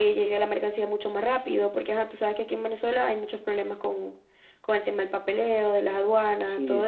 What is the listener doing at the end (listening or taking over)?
taking over